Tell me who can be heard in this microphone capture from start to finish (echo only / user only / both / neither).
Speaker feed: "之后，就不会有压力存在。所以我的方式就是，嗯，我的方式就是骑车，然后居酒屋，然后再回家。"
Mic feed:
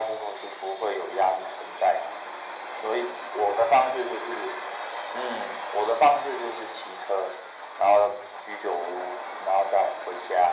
echo only